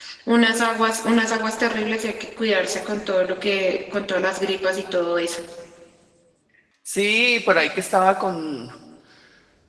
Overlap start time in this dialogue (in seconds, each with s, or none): none